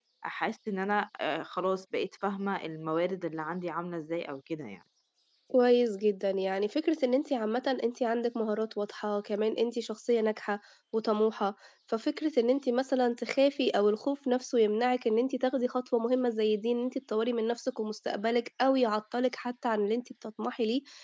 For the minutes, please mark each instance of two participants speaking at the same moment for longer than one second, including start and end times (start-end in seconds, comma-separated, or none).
none